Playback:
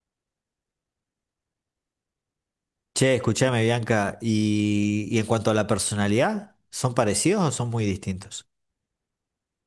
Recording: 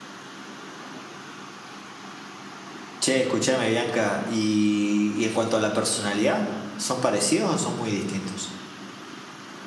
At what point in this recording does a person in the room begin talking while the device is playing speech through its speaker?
none

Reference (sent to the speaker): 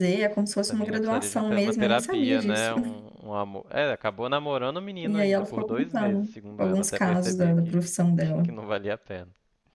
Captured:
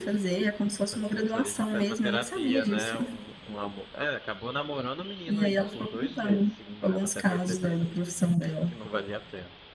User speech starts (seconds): none

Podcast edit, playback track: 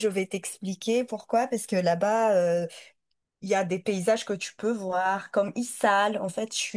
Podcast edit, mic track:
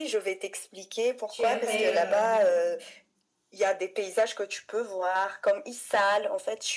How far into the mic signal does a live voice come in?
1.3 s

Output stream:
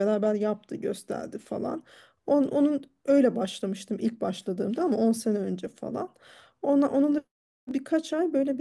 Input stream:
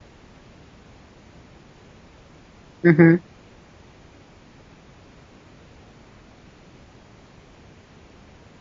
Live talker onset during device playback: 2.8 s

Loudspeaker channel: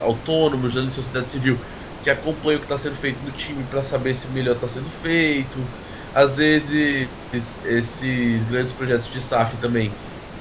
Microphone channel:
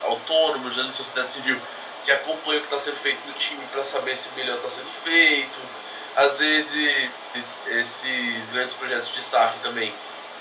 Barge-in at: none

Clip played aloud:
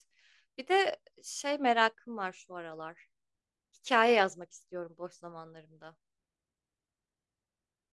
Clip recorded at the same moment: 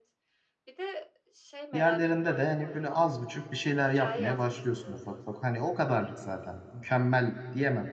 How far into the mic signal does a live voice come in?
1.7 s

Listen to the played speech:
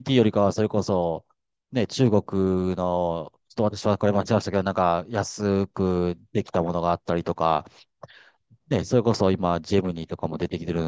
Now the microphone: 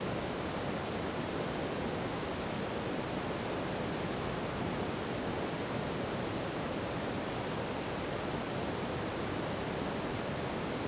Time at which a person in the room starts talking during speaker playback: none

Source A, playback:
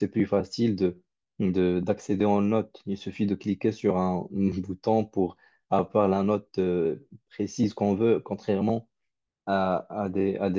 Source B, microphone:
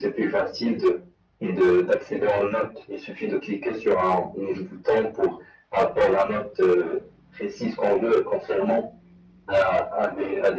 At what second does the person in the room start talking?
none

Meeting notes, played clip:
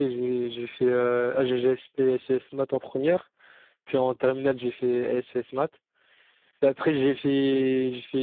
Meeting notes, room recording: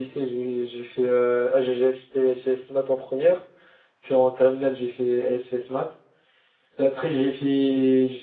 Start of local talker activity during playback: none

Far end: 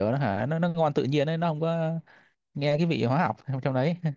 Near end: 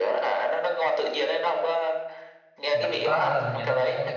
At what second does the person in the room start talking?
2.7 s

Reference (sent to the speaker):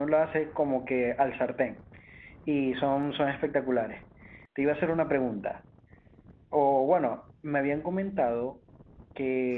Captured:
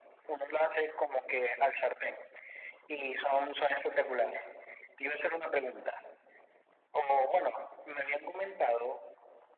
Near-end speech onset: none

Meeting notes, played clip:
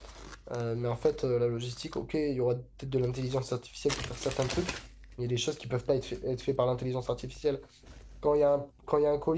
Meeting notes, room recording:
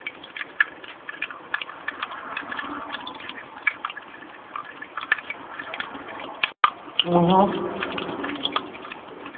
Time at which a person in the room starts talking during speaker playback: 7.0 s

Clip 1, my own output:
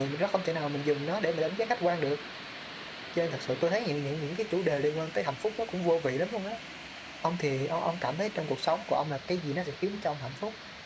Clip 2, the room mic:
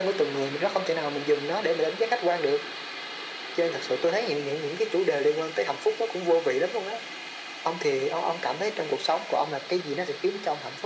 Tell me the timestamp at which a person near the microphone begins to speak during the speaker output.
none

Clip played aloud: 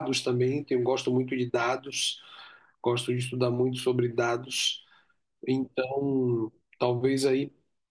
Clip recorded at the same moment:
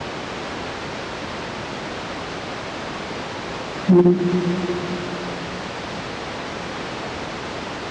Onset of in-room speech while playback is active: 3.9 s

